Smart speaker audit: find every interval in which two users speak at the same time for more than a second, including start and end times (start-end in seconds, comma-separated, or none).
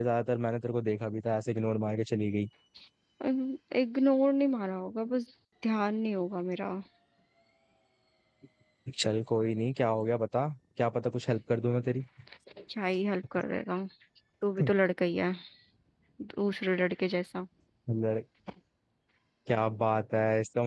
none